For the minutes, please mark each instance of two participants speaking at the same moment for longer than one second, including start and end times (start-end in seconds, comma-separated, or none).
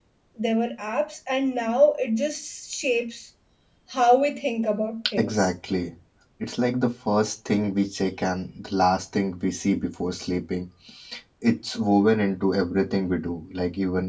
none